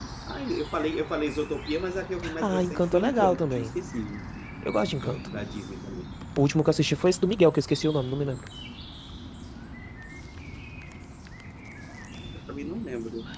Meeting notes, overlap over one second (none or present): present